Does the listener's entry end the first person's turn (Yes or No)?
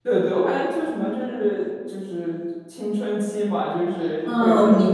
Yes